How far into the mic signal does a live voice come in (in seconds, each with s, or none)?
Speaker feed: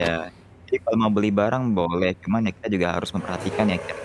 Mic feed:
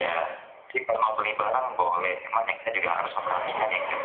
none